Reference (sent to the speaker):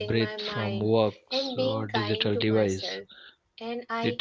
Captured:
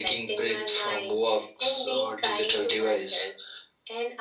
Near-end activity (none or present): none